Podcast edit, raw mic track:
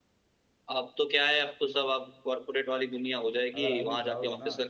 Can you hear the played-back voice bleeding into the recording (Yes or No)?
Yes